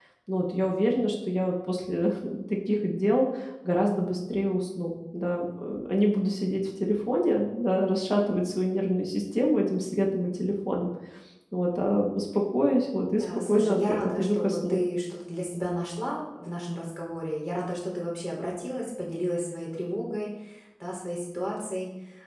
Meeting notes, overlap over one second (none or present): present